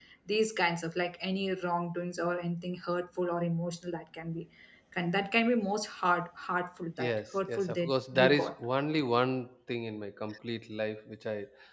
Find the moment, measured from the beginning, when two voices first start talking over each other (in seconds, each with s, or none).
7.0 s